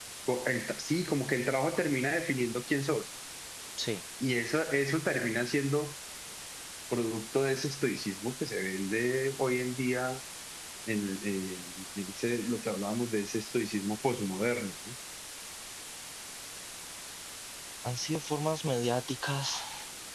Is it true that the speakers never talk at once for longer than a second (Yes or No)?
Yes